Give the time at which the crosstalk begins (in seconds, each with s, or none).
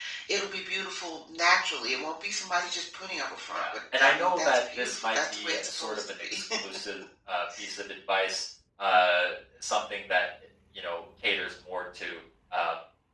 3.5 s